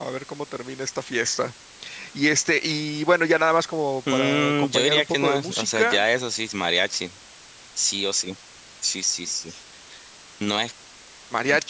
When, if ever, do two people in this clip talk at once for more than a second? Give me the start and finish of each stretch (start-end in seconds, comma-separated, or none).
4.1-6.0